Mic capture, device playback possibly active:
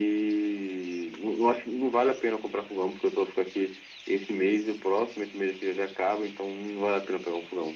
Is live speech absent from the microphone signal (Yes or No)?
Yes